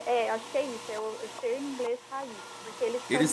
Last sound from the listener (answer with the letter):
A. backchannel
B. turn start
B